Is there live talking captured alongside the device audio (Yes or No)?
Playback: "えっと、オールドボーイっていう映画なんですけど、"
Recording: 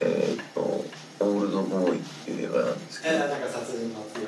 Yes